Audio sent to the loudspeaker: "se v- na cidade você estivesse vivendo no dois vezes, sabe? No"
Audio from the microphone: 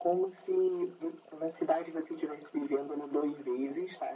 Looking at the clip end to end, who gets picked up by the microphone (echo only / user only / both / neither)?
echo only